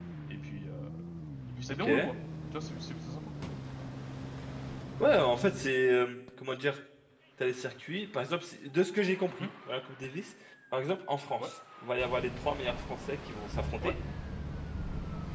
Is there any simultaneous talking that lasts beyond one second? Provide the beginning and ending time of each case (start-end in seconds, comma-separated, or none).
none